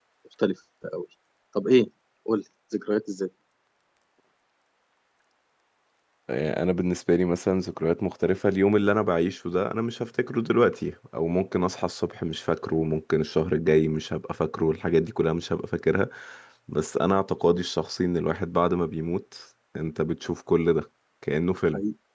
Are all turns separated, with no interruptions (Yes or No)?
Yes